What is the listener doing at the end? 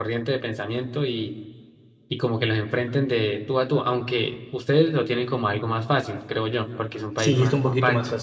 taking over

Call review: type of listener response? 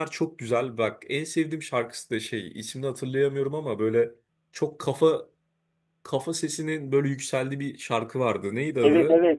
taking over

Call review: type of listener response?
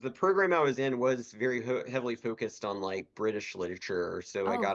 listening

